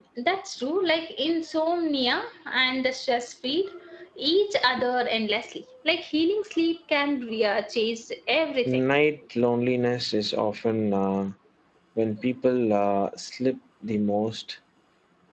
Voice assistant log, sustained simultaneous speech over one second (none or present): none